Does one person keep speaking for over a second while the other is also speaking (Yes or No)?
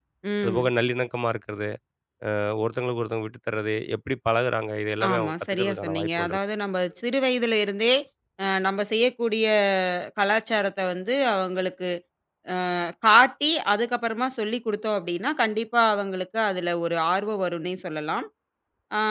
Yes